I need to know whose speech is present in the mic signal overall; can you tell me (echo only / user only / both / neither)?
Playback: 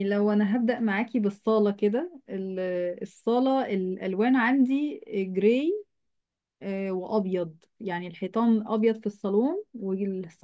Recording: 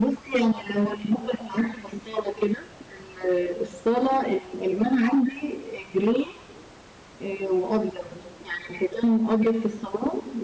echo only